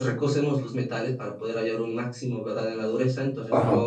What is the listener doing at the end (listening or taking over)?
listening